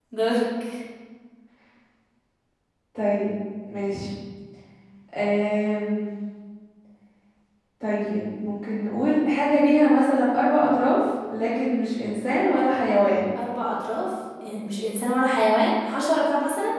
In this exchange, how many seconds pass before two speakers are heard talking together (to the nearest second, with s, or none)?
none